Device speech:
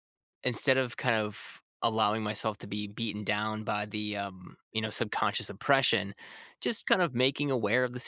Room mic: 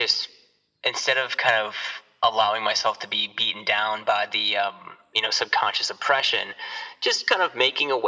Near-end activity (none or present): none